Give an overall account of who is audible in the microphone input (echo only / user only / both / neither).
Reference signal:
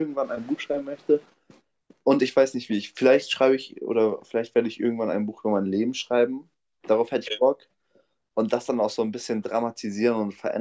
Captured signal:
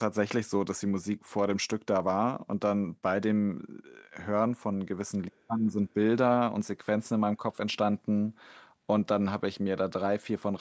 user only